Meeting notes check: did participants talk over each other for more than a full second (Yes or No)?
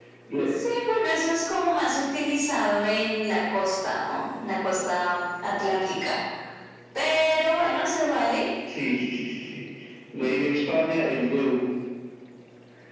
No